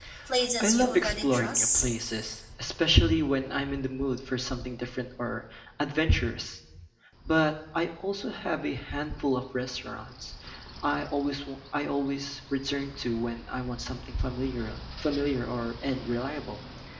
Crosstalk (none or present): present